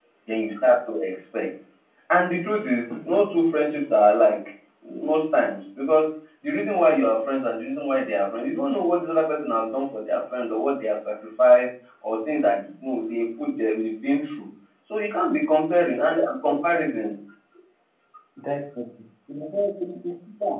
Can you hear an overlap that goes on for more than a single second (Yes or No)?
No